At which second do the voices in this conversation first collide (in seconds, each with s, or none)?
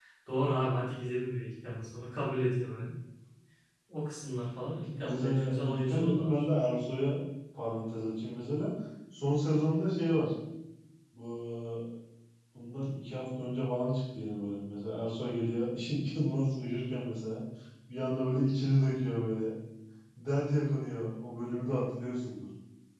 4.9 s